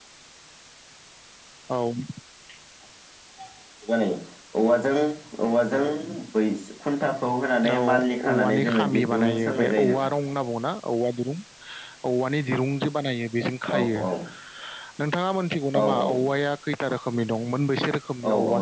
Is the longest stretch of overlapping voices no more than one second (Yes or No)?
No